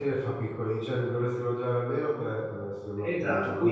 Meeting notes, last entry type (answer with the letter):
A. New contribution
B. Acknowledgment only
A